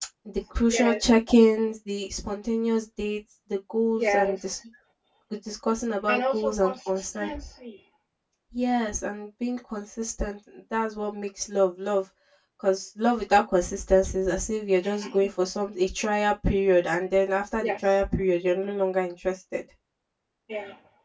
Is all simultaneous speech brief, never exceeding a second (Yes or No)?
No